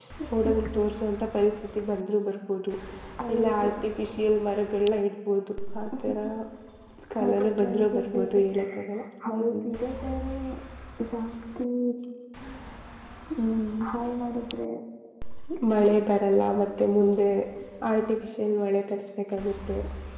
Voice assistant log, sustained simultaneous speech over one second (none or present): present